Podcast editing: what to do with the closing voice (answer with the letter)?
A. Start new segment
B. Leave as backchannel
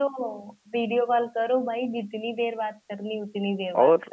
A